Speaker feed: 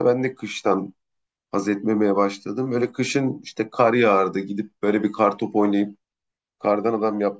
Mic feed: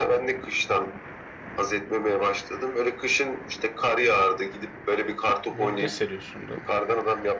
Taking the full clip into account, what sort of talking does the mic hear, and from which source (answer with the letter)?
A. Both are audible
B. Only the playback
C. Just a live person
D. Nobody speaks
A